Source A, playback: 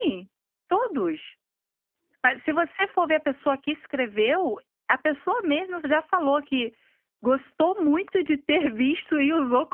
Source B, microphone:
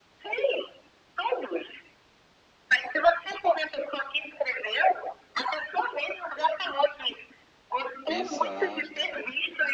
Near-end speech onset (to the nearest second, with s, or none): 8 s